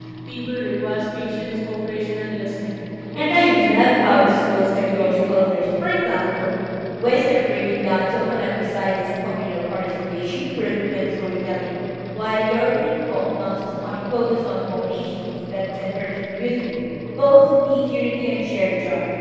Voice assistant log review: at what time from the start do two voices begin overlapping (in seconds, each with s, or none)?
3.1 s